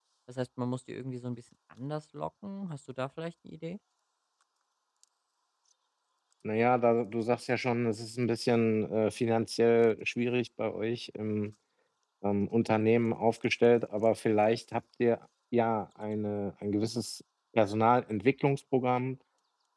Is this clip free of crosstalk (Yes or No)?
Yes